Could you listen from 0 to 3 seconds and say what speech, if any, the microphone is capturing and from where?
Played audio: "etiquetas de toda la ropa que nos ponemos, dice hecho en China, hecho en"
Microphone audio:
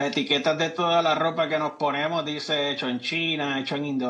echo only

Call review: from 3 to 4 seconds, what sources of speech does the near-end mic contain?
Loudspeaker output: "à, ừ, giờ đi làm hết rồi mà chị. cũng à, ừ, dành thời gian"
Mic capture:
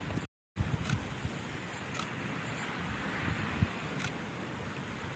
neither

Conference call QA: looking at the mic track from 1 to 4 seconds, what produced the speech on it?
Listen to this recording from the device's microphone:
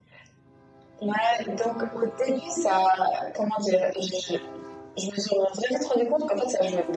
echo only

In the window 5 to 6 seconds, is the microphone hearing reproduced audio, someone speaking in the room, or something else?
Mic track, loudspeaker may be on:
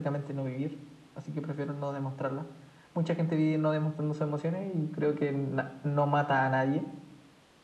echo only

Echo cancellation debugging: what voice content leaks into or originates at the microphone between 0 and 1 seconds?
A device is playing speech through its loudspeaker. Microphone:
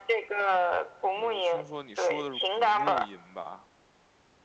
echo only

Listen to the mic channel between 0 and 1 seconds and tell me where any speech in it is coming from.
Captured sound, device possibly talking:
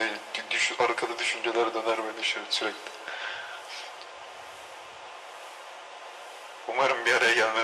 echo only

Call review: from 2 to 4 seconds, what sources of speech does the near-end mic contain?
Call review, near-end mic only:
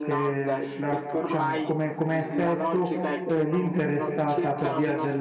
both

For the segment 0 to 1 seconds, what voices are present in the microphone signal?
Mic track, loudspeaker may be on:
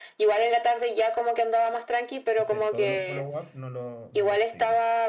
echo only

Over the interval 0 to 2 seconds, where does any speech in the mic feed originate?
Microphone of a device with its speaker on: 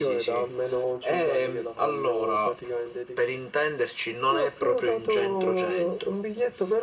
echo only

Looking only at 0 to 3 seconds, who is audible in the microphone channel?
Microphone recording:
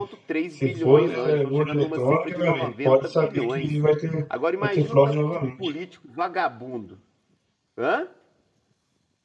both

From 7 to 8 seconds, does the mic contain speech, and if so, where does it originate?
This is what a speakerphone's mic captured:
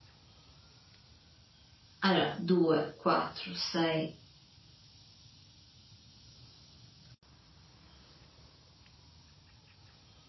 neither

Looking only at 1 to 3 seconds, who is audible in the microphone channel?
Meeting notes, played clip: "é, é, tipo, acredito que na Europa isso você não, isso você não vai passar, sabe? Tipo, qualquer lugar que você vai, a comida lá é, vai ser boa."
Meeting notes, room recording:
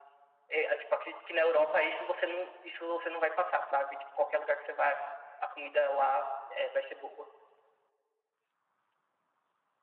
echo only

